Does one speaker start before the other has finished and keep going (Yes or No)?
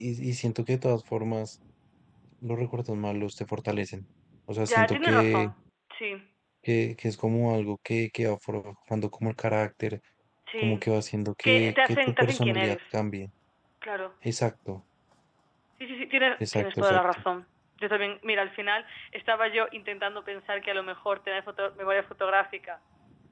Yes